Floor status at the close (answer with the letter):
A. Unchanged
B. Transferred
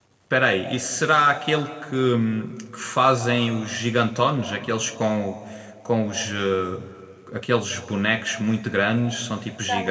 B